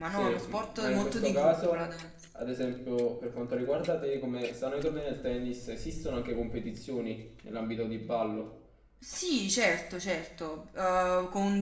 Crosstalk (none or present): present